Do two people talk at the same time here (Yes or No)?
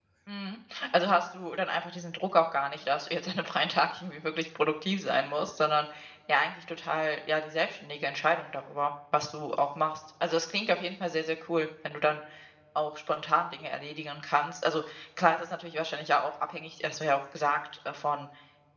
No